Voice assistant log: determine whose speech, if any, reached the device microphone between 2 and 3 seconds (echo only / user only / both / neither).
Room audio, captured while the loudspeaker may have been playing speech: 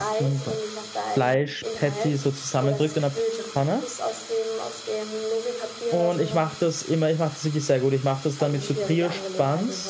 both